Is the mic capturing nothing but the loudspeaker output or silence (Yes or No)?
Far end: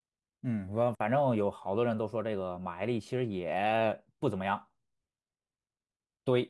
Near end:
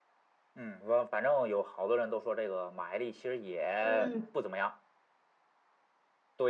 No